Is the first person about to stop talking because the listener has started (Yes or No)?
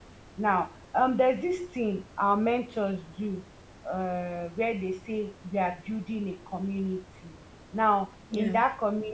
No